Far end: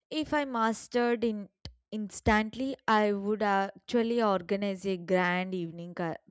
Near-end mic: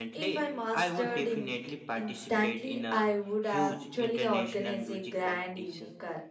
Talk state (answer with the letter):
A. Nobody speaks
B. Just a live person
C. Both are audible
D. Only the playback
C